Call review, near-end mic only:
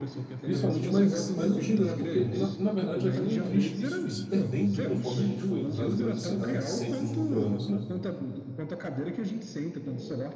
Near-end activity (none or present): present